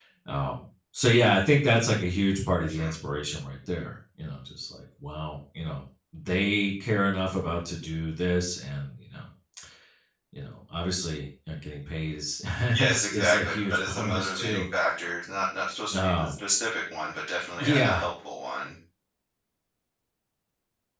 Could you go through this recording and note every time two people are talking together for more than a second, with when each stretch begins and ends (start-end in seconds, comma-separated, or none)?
12.8-14.6